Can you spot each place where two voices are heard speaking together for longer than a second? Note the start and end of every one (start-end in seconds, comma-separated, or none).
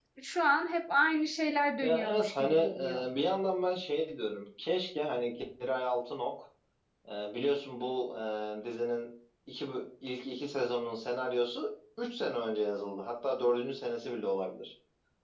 1.8-3.1